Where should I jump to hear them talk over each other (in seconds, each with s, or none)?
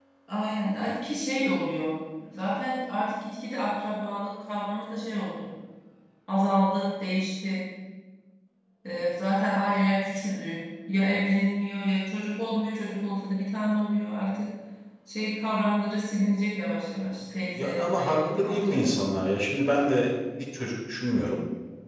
17.6 s